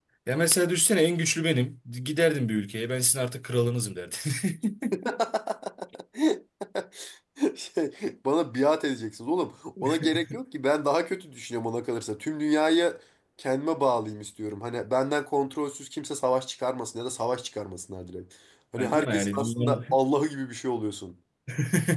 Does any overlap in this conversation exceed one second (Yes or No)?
Yes